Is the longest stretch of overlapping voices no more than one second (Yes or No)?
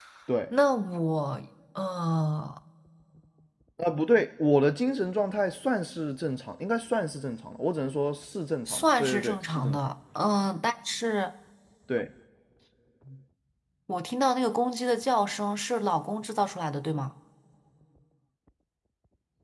No